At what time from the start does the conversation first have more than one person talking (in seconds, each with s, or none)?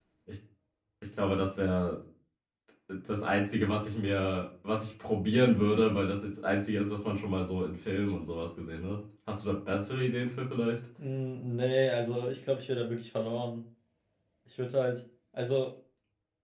none